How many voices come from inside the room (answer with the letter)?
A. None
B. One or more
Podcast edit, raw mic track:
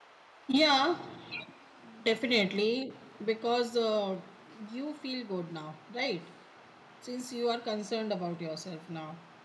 A